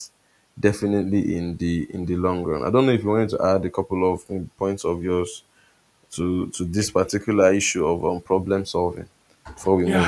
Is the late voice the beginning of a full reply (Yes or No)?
Yes